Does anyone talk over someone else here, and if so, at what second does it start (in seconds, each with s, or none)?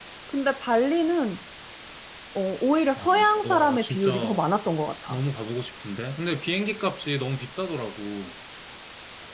3.0 s